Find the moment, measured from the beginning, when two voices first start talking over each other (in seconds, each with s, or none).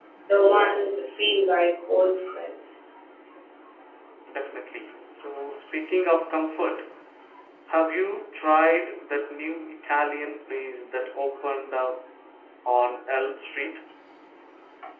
none